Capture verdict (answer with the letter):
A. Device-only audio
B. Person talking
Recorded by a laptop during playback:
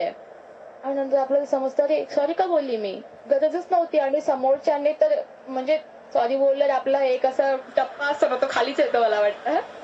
A